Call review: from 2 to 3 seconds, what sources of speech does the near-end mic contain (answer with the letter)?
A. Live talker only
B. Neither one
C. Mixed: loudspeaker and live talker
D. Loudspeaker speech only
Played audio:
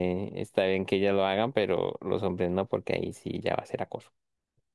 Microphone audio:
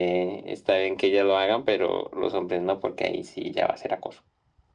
D